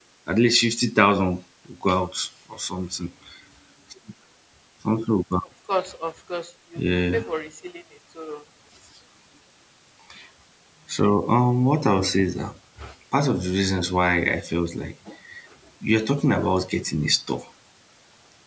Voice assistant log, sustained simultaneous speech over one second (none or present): none